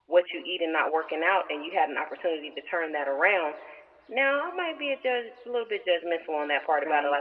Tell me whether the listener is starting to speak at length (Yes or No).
No